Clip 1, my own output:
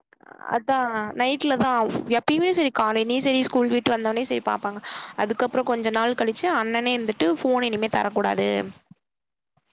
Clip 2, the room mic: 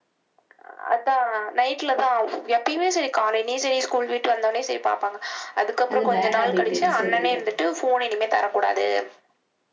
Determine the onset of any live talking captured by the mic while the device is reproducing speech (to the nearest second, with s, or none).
6 s